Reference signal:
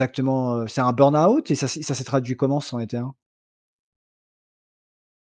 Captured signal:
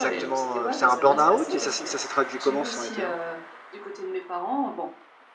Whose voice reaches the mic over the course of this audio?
both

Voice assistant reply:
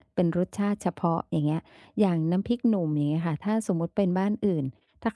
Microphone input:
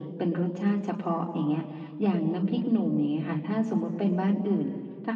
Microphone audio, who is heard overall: echo only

